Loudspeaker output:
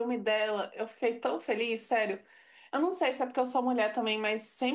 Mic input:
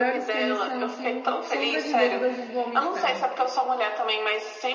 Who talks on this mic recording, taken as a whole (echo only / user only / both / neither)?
both